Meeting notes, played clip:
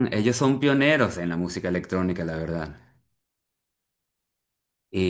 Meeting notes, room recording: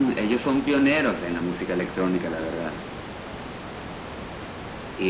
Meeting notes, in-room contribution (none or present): none